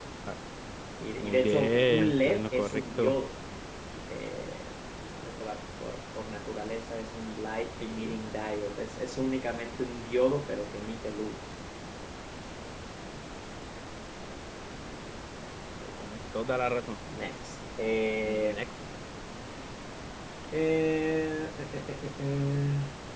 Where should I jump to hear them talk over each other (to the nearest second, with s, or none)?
1 s